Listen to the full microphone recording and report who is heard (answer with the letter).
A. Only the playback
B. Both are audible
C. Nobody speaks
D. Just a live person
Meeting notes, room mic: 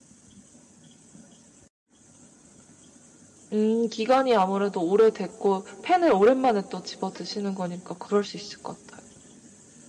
D